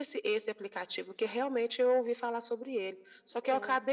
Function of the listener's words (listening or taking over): listening